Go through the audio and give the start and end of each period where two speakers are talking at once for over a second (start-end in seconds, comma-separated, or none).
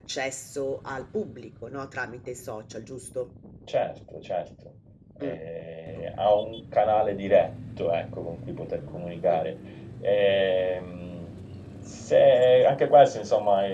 none